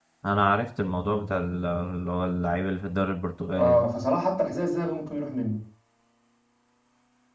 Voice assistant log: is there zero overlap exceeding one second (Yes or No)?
Yes